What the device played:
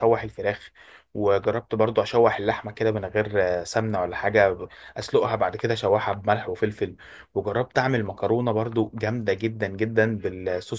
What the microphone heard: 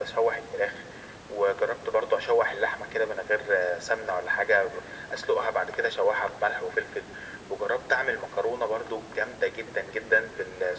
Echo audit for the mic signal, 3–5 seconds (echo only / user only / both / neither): echo only